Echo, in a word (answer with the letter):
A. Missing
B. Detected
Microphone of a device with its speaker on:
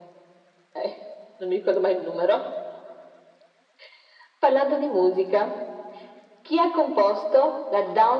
B